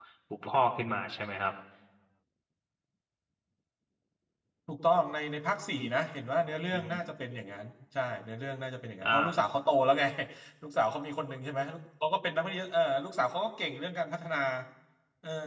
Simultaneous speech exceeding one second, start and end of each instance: none

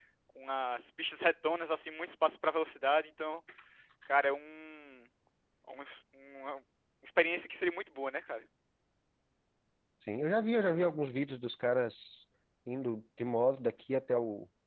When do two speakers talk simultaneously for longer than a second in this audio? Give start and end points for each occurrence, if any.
none

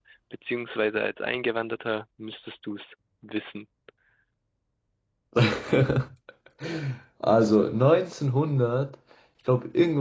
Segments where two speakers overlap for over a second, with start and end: none

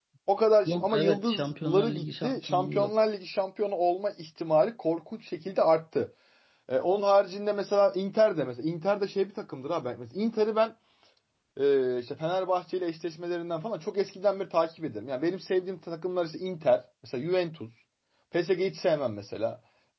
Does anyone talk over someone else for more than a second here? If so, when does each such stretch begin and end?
0.7-3.1

